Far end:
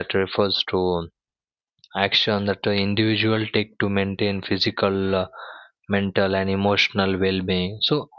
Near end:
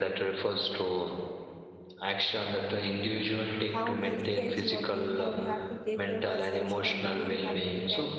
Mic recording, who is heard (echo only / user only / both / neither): both